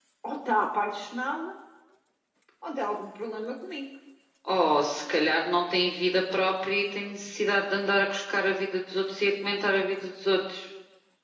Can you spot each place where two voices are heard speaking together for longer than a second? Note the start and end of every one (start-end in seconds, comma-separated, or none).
none